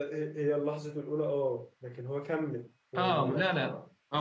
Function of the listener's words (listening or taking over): taking over